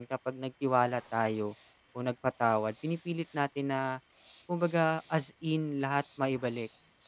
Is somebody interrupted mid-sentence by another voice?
No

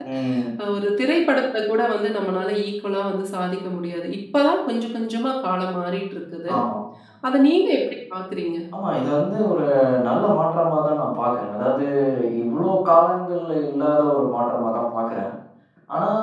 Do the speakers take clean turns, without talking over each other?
Yes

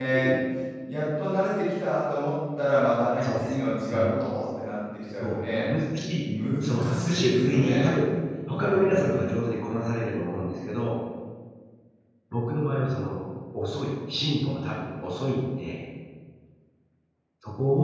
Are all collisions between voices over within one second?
No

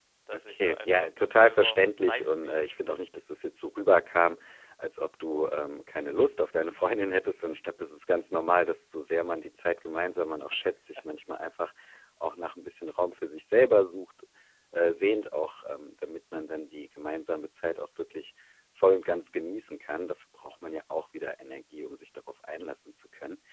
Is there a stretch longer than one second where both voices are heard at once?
Yes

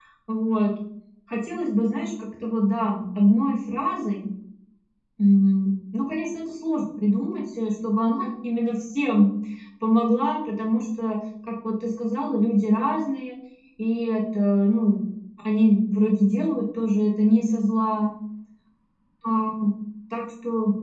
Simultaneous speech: No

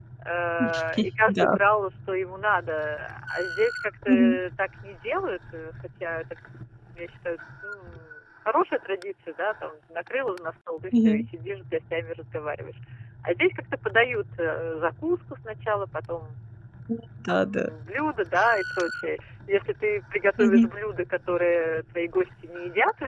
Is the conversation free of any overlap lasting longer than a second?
Yes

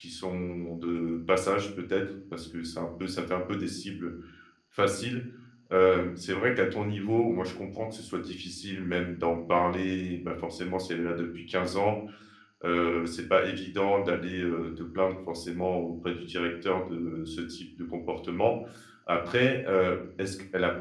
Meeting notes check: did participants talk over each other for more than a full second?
No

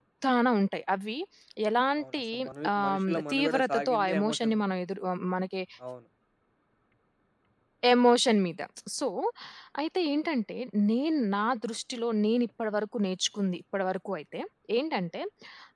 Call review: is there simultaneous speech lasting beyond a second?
Yes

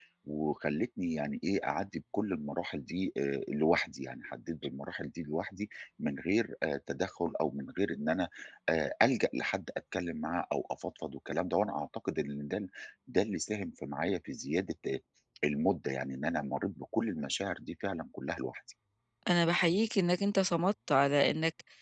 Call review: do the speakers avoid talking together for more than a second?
Yes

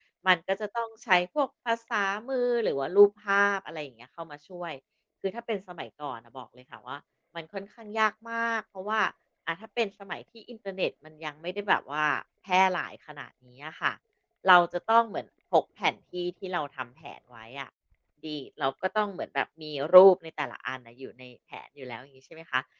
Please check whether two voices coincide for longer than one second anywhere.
No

